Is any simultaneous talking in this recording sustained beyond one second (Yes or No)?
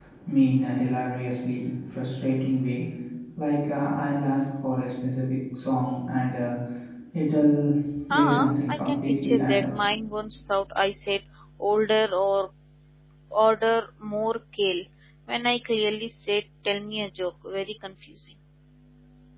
Yes